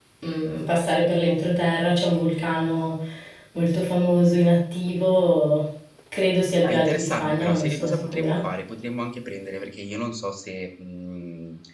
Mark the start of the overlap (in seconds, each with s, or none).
6.6 s